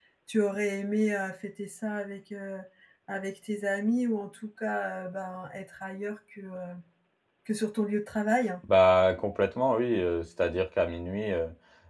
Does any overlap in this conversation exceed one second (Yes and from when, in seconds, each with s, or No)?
No